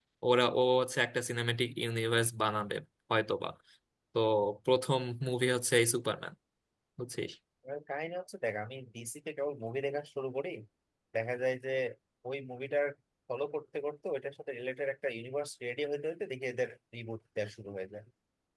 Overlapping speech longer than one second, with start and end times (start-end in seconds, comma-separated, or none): none